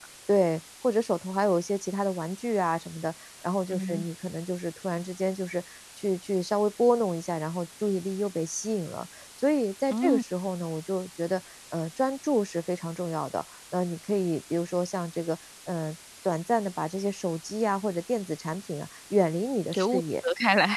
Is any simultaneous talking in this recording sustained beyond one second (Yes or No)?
No